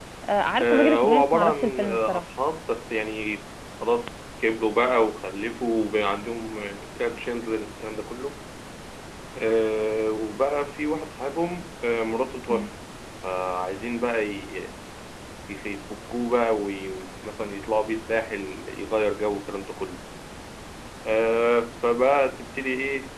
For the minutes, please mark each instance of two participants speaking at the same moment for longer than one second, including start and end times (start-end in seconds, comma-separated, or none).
0.6-2.2